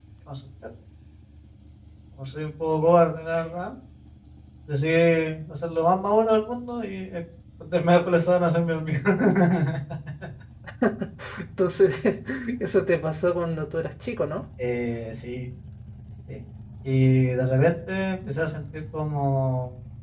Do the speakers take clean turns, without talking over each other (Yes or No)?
Yes